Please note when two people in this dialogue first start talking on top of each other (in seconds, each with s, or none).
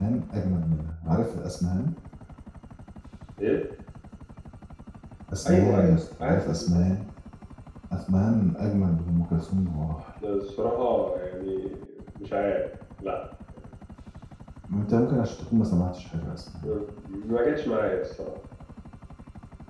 5.5 s